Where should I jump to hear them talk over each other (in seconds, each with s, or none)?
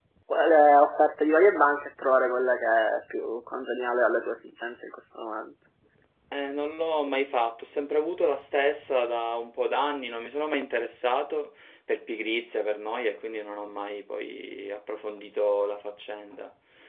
none